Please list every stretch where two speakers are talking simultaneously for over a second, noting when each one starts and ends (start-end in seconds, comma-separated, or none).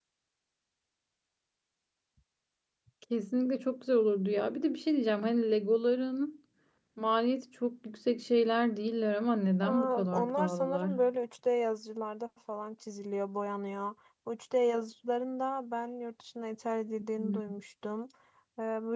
9.6-10.9